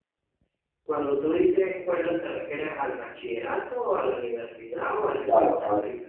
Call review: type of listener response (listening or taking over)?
taking over